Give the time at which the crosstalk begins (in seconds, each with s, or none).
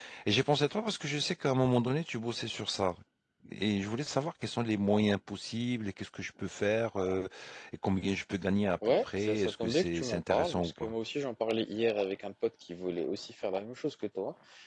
8.8 s